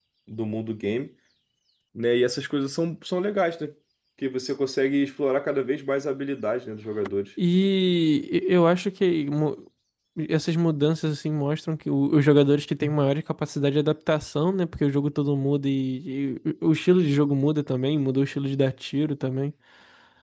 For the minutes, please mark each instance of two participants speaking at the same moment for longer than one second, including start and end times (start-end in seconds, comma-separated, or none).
none